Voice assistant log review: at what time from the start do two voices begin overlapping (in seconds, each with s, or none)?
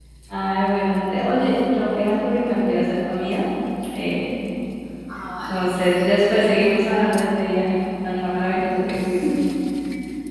5.5 s